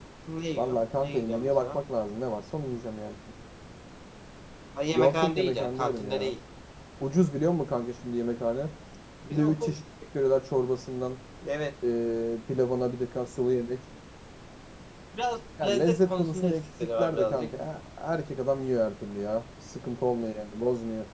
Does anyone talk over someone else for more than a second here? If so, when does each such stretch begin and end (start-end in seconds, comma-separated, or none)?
0.6-1.8, 4.9-6.3, 15.6-17.5